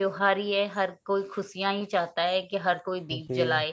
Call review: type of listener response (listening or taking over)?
taking over